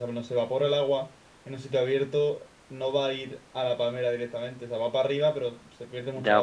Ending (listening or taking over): taking over